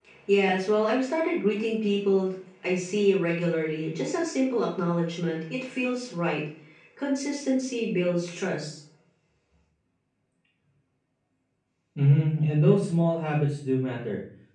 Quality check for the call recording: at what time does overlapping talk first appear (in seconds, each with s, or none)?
none